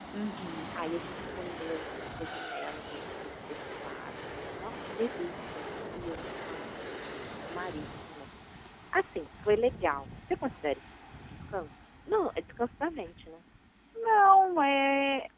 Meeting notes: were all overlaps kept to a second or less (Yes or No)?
Yes